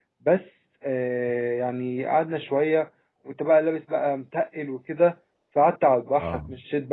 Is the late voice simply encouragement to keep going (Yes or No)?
Yes